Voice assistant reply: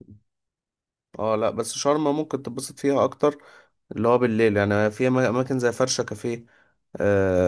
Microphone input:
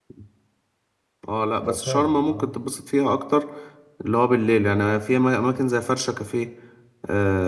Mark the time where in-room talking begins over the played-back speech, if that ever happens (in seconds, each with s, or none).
1.6 s